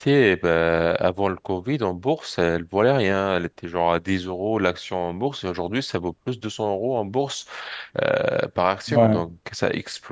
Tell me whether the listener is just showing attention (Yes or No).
Yes